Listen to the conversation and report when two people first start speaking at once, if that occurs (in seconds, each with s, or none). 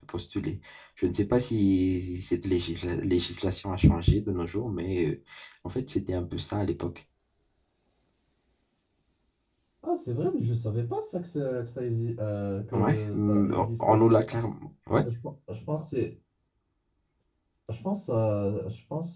12.7 s